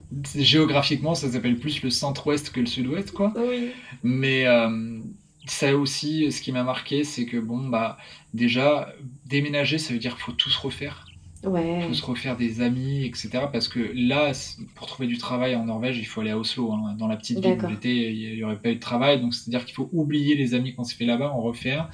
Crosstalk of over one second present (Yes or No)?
No